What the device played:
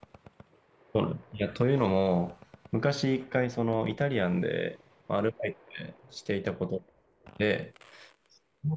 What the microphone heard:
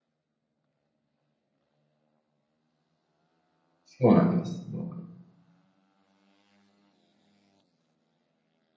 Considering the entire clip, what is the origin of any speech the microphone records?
user only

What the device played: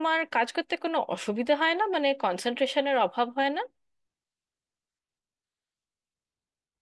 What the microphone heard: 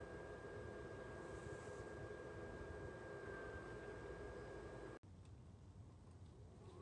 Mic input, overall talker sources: neither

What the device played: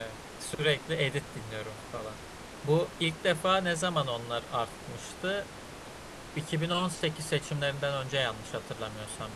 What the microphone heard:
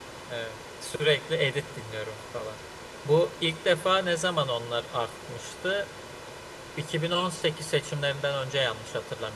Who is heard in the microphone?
echo only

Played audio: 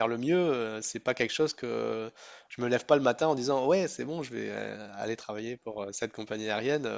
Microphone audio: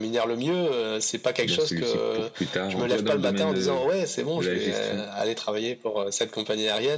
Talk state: both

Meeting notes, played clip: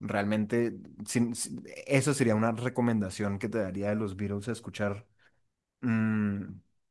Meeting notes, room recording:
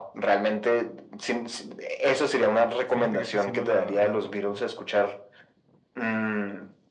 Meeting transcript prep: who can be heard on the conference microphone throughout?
both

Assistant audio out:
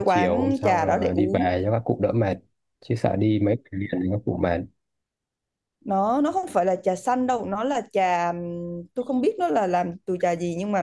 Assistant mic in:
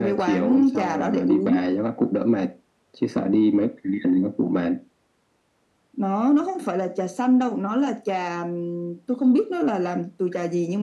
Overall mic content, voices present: echo only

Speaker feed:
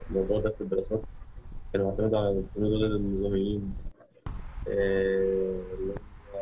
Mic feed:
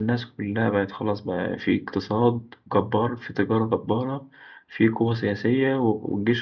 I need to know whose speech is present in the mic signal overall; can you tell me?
user only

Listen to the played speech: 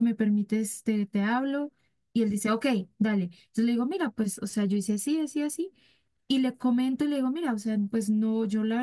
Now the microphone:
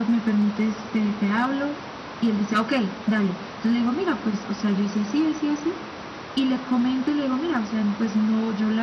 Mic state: echo only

